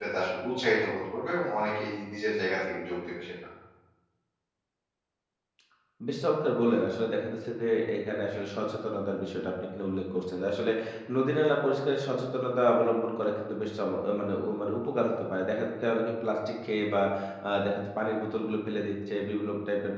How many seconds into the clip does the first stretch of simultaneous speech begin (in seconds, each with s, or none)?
none